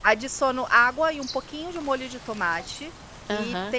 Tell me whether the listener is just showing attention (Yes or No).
Yes